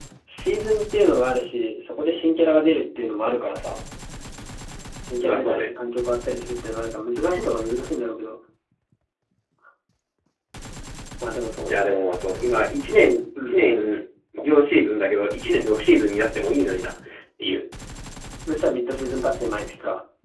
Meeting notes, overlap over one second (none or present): none